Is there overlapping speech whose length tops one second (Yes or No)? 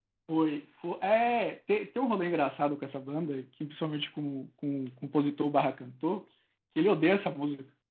No